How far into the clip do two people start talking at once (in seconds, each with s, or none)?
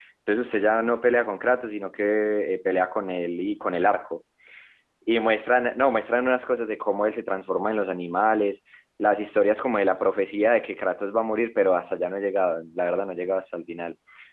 none